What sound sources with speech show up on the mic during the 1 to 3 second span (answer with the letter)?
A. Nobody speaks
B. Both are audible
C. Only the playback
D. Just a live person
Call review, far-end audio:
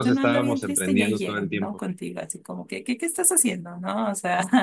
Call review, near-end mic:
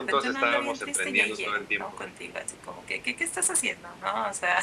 C